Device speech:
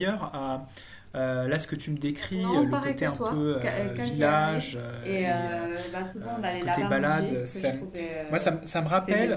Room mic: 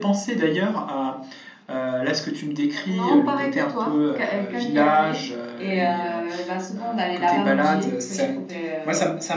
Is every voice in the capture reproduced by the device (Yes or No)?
Yes